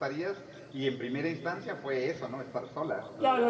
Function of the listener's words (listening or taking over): taking over